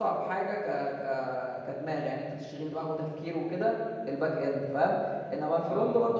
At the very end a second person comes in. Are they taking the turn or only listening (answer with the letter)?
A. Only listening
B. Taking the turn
A